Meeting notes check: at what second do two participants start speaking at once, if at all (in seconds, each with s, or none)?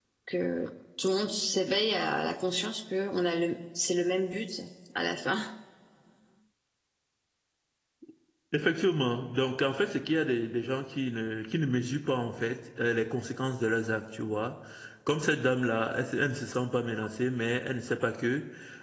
none